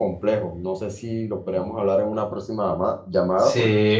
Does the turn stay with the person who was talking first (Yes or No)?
No